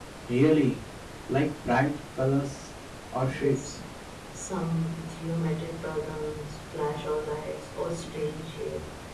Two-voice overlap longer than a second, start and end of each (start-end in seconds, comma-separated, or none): none